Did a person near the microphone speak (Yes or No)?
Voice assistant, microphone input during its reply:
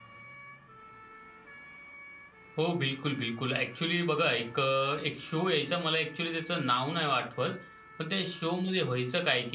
Yes